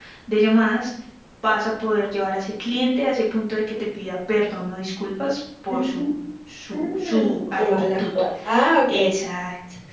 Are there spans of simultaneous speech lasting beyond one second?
Yes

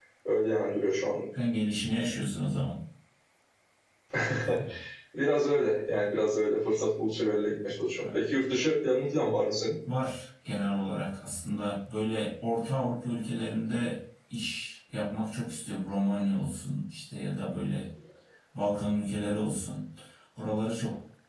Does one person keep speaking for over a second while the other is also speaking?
No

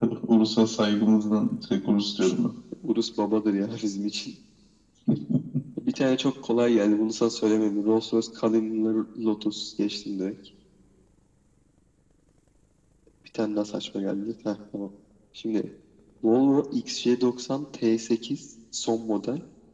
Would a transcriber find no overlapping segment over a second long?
Yes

